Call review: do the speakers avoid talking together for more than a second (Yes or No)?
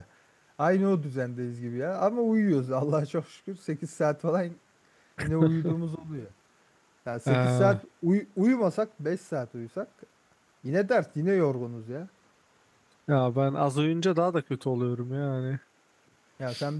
Yes